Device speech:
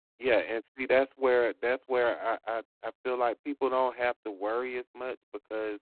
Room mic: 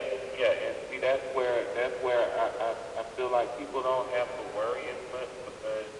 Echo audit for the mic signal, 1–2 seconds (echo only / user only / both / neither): echo only